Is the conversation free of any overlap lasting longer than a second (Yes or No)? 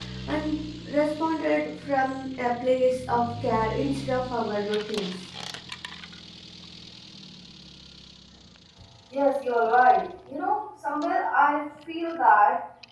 Yes